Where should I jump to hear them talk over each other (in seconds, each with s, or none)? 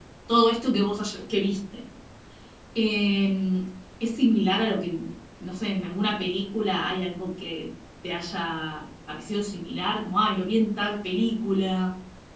none